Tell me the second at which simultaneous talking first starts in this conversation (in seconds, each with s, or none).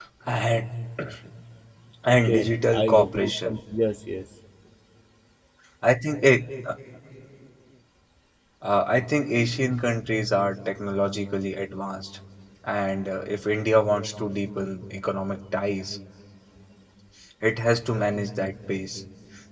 2.1 s